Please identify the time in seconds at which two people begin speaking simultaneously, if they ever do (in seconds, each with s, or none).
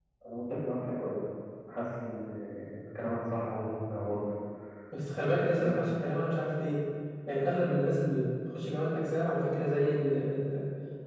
none